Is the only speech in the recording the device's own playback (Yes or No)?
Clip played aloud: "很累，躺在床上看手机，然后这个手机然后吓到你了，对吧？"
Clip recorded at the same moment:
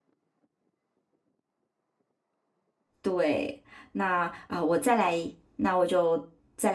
No